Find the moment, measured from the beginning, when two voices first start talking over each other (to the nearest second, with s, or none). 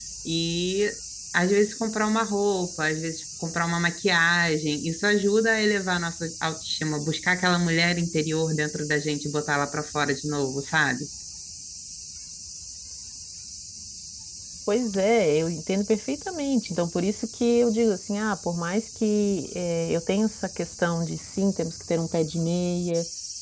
none